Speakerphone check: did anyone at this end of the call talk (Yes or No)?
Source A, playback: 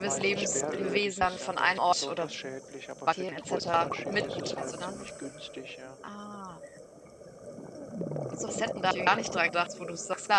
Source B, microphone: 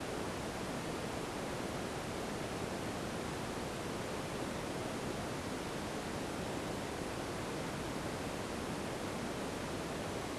No